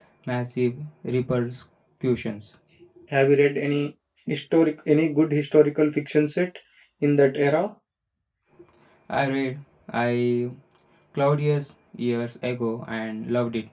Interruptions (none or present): none